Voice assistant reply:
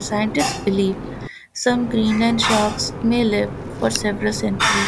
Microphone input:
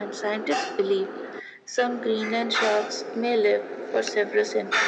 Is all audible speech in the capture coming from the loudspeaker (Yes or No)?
Yes